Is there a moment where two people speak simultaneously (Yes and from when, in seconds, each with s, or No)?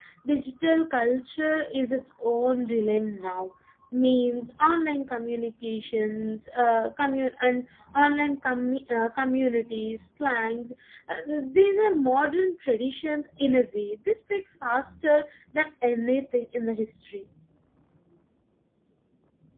No